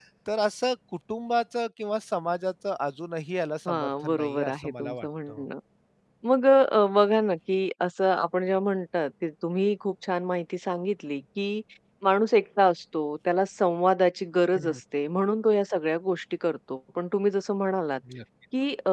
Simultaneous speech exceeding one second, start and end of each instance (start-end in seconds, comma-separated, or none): 3.7-5.5